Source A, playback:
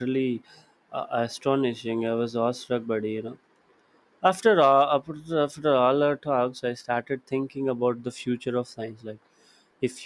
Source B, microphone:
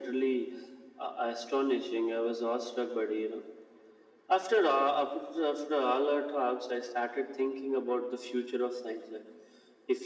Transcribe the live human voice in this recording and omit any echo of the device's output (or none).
none